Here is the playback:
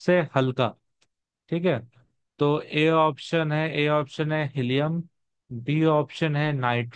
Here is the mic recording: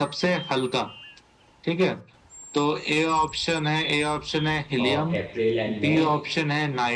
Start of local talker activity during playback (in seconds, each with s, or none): 4.8 s